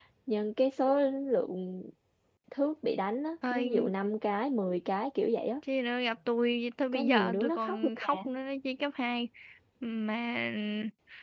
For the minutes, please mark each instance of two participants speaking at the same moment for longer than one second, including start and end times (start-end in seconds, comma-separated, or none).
6.9-8.2